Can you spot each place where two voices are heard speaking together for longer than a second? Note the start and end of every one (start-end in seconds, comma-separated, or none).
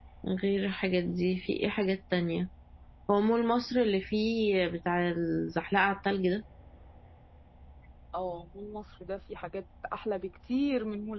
none